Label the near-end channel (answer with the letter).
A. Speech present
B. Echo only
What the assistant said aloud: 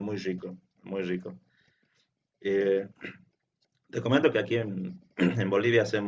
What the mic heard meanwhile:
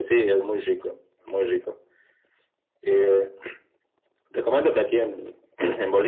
B